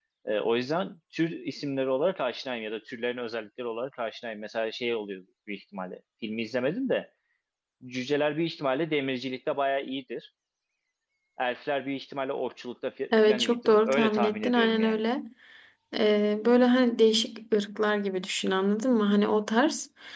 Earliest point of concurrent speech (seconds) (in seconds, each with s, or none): 13.1 s